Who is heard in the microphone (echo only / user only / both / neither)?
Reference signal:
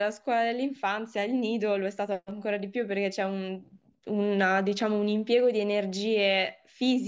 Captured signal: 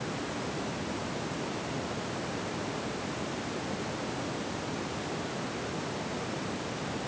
neither